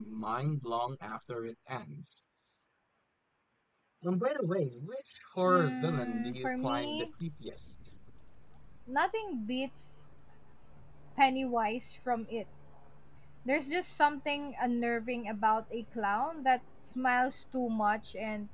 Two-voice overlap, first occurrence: 5.5 s

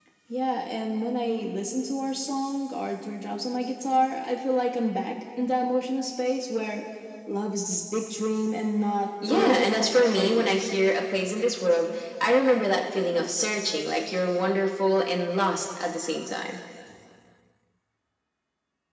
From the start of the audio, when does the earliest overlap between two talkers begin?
9.2 s

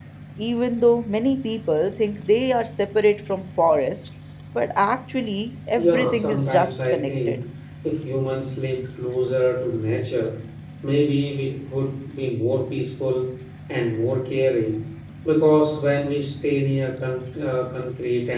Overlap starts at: 5.8 s

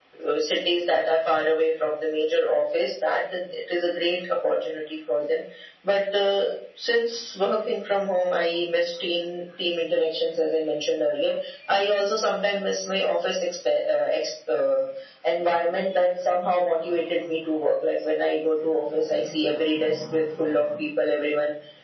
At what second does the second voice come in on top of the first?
none

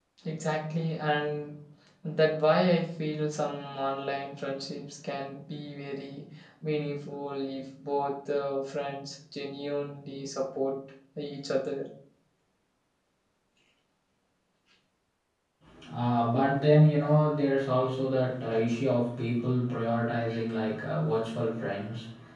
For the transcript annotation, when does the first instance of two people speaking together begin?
none

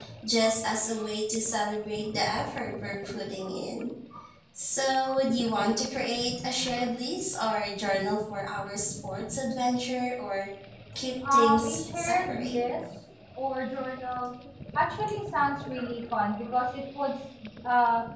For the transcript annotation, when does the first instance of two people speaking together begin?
11.3 s

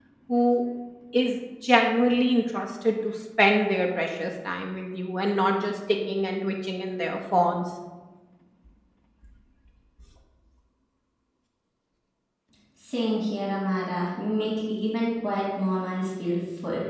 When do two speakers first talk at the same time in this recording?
none

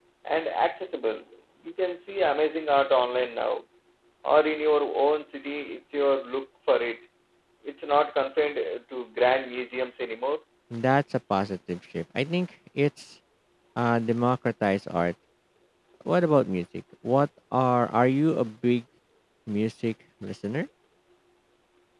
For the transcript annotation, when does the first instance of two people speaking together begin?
none

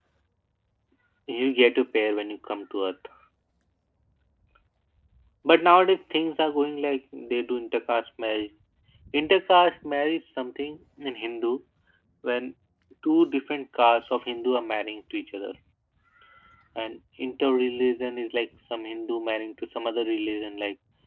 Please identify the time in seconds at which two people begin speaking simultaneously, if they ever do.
none

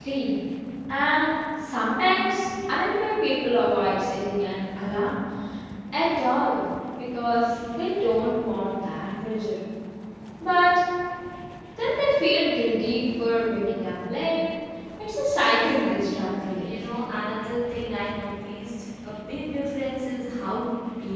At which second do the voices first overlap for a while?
15.4 s

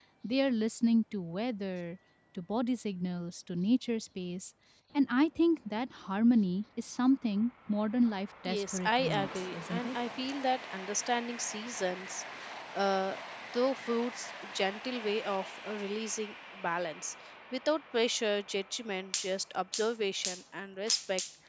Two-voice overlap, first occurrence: 8.5 s

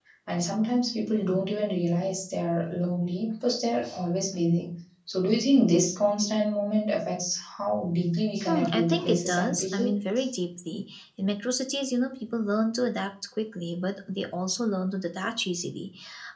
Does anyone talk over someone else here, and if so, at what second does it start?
8.5 s

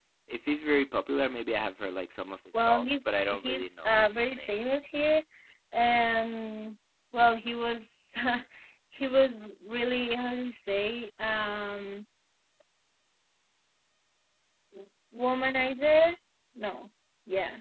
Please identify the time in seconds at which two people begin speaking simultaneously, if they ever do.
2.5 s

